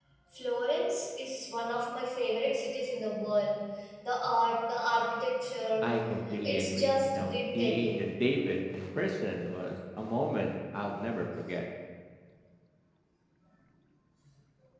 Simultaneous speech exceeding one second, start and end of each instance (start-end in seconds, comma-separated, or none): 6.4-8.0